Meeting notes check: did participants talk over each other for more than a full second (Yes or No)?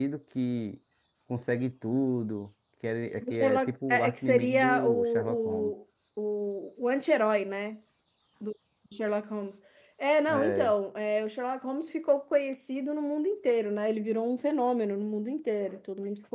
Yes